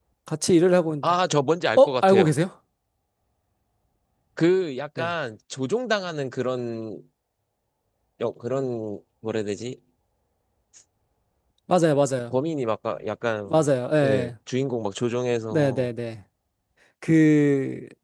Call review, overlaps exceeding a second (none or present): none